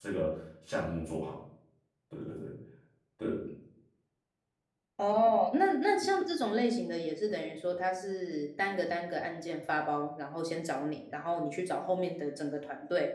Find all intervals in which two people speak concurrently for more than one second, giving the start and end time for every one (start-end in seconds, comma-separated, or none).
none